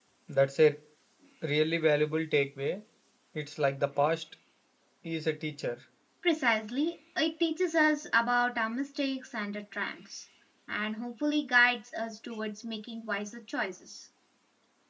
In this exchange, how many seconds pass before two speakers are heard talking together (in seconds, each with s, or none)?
none